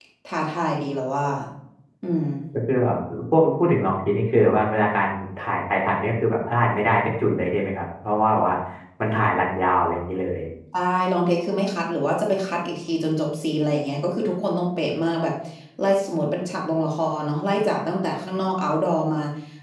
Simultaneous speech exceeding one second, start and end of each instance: none

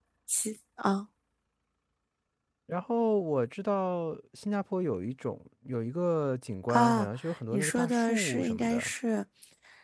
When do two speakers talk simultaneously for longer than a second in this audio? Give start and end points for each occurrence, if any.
7.5-8.9

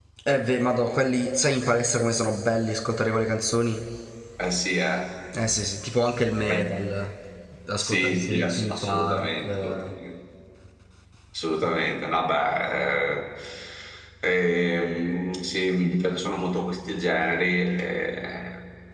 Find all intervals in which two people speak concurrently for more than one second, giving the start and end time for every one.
7.8-9.9

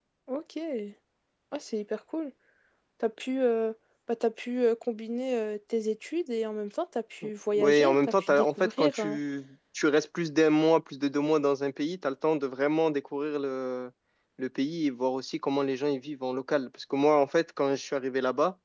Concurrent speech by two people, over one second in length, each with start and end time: 7.5-9.2

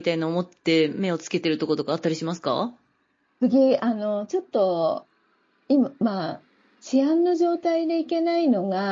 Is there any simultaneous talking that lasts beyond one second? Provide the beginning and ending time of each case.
none

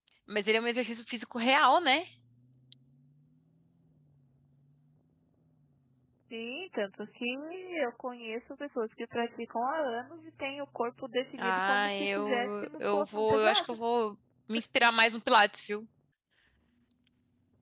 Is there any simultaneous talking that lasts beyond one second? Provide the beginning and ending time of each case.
11.4-13.6

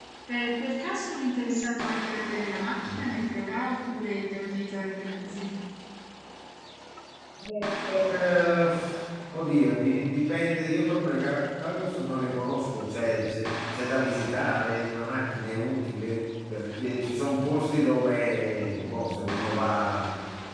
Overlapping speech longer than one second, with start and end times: none

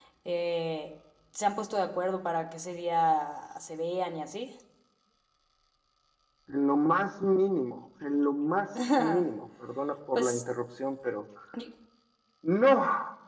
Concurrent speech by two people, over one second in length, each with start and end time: none

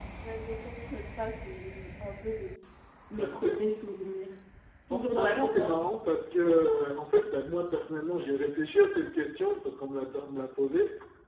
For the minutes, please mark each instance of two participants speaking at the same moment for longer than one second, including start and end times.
4.9-6.4

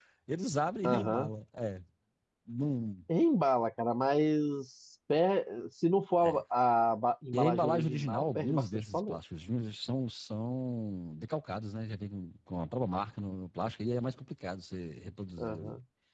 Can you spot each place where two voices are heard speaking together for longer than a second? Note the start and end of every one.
7.3-9.2

